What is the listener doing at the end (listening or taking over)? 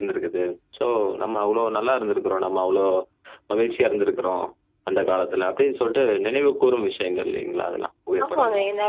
taking over